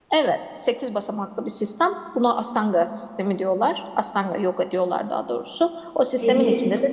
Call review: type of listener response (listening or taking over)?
listening